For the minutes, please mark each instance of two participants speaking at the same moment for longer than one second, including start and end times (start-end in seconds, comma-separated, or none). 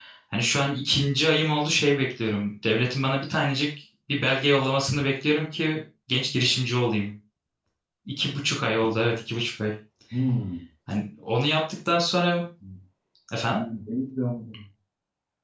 none